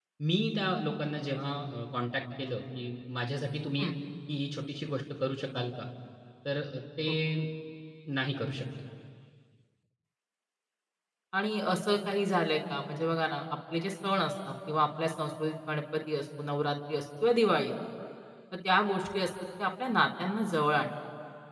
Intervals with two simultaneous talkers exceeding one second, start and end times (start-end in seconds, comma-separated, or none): none